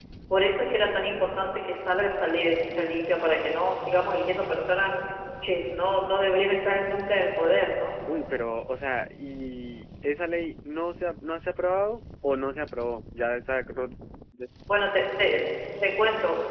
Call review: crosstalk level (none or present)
none